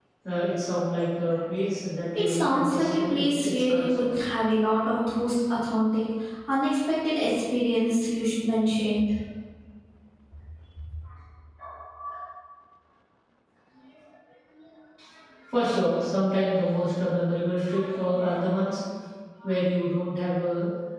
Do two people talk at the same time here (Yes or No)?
Yes